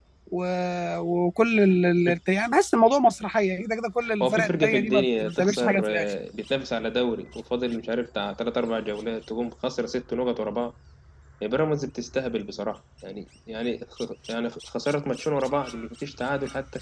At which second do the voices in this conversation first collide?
4 s

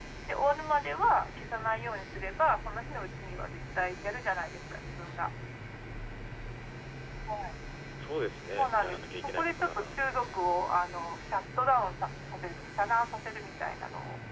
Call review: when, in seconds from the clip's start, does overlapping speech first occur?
9 s

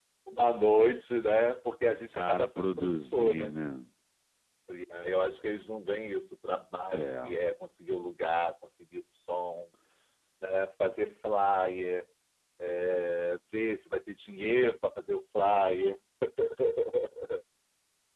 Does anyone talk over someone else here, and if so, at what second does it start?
2 s

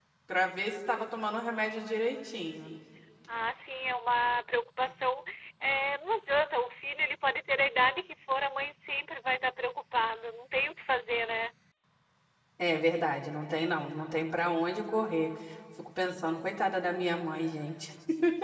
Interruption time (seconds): none

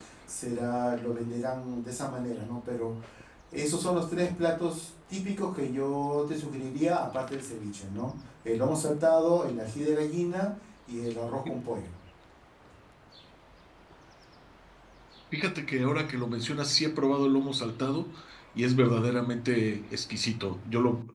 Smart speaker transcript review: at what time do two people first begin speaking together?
none

